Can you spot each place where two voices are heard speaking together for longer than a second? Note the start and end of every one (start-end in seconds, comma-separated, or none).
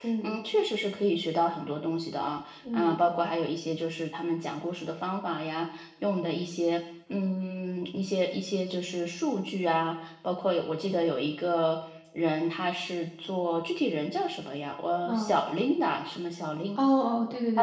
none